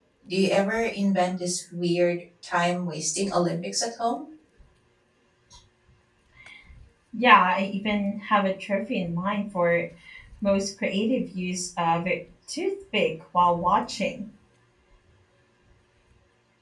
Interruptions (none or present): none